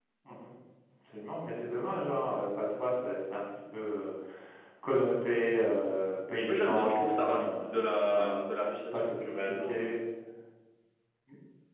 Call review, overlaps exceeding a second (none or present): present